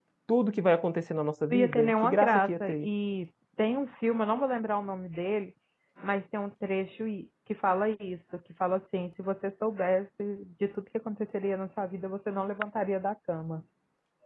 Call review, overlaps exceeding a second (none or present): present